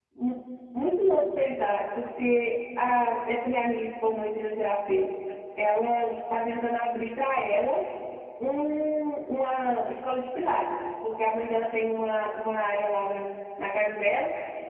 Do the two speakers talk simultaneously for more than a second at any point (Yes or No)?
No